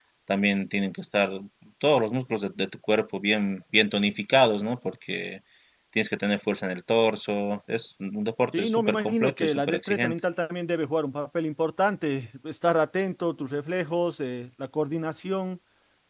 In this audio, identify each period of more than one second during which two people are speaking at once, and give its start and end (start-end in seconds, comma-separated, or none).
8.6-10.2